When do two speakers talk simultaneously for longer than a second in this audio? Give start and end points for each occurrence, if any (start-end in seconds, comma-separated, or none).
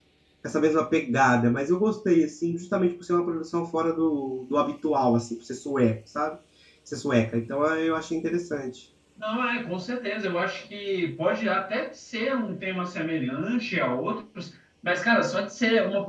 none